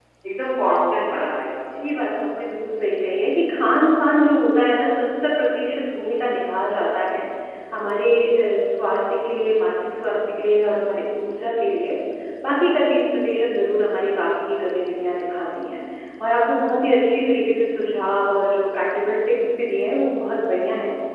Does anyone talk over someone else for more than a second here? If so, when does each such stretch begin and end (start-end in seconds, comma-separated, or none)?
none